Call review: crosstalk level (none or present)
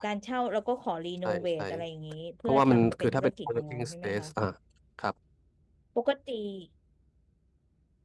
present